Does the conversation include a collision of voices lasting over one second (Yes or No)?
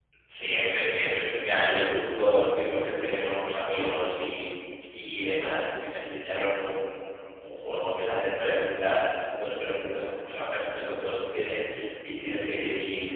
No